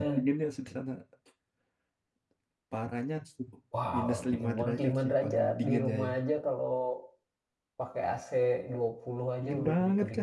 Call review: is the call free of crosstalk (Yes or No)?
No